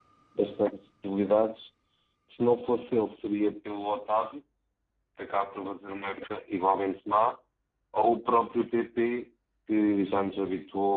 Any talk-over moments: No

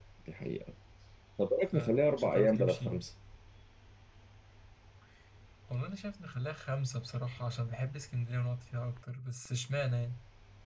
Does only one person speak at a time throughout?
No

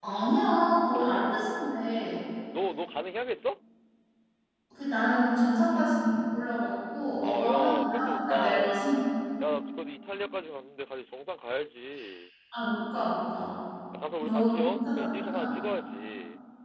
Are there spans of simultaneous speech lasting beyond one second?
Yes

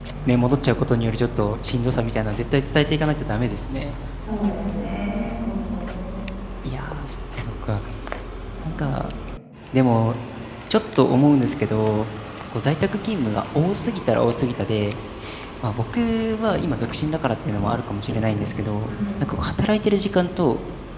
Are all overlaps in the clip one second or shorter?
Yes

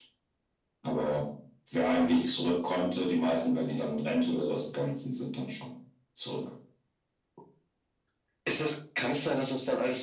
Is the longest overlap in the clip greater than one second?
No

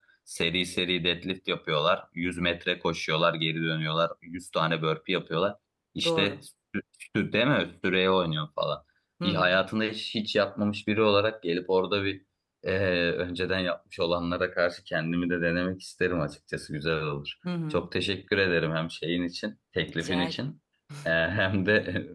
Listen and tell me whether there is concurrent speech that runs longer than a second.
No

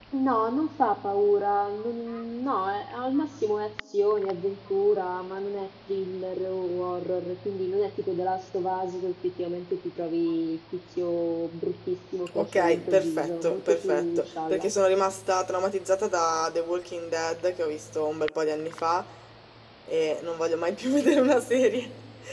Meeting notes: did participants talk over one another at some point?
Yes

